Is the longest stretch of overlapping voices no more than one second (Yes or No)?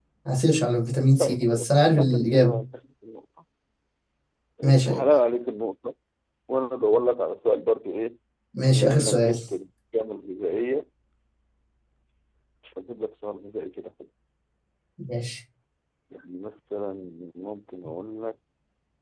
No